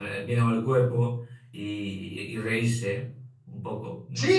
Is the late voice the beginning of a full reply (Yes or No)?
Yes